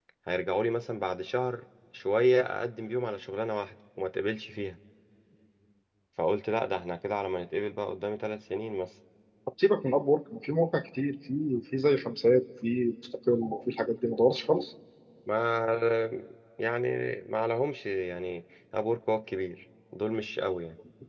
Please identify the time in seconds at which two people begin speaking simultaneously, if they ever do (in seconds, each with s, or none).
none